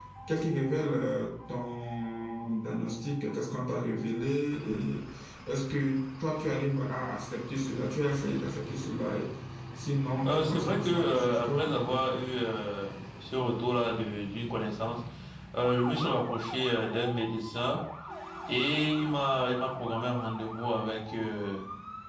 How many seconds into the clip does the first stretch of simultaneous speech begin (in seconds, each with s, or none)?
10.2 s